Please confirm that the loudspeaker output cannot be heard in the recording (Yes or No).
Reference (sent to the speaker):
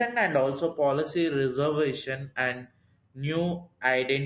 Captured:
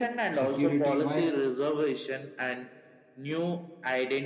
No